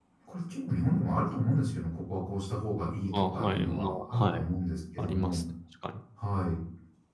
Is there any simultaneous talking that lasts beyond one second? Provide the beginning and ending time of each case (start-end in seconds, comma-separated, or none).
3.1-4.4